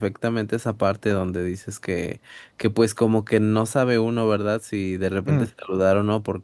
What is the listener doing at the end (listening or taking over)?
listening